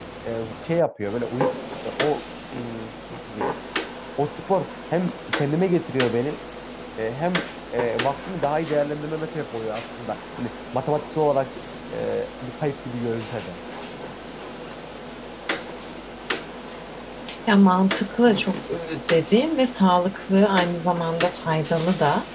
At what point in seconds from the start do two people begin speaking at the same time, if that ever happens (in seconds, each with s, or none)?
none